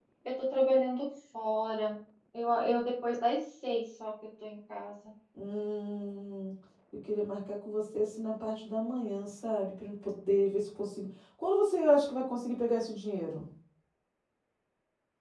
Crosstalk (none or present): none